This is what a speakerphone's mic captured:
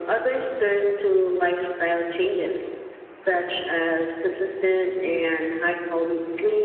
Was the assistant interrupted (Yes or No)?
No